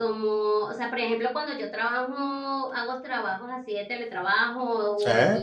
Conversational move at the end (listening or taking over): listening